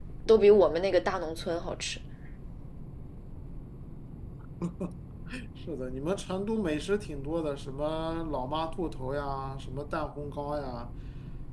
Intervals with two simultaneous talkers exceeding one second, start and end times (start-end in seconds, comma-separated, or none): none